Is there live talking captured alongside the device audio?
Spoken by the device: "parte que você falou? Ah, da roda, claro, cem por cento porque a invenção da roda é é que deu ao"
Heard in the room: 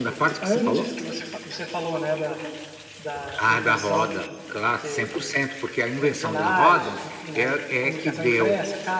Yes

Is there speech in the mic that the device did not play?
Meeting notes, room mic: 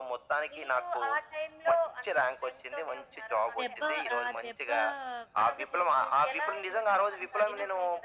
Yes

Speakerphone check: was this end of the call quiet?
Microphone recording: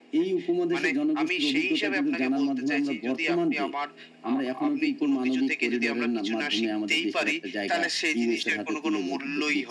Yes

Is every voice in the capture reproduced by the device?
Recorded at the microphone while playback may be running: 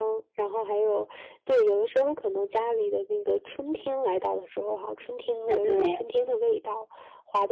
No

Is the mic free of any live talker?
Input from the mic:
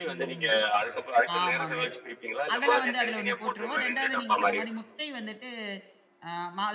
No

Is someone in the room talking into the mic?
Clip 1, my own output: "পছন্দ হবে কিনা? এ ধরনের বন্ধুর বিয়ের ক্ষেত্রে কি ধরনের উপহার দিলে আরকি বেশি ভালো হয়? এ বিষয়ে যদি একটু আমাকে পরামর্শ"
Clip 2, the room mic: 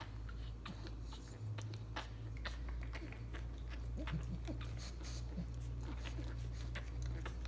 No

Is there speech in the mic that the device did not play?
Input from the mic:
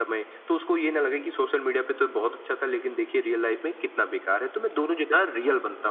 No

